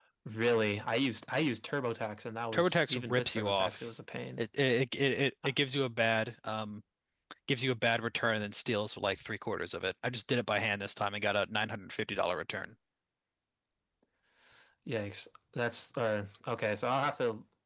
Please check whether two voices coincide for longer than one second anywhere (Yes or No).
Yes